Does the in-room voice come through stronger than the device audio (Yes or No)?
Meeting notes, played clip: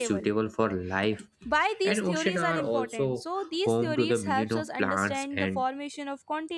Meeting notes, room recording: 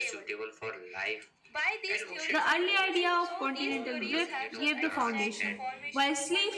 Yes